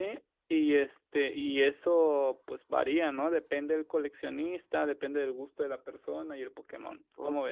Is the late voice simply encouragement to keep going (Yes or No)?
No